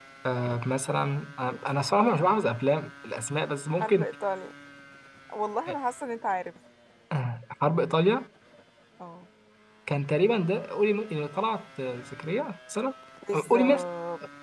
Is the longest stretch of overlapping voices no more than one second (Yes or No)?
Yes